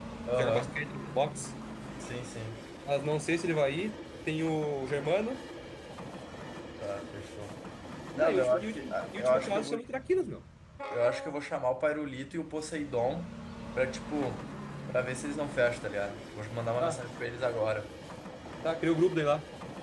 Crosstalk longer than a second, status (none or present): present